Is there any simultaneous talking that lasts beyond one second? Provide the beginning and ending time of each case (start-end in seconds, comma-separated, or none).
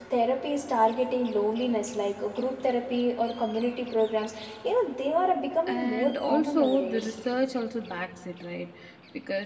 5.7-7.1